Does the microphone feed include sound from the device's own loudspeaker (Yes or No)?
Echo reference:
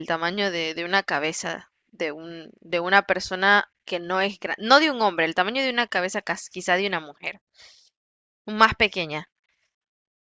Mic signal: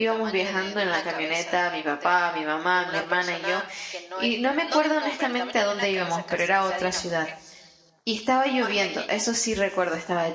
Yes